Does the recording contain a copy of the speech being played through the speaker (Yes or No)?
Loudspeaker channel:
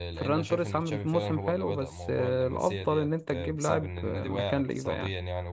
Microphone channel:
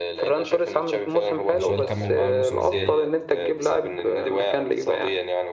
Yes